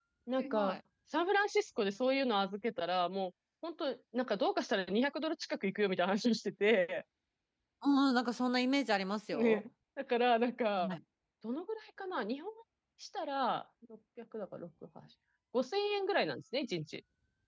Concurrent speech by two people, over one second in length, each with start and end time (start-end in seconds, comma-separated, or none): none